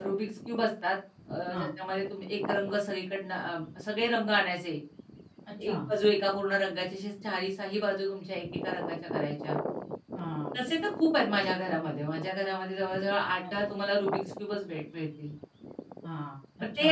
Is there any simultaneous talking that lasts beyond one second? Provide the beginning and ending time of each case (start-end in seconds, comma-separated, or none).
none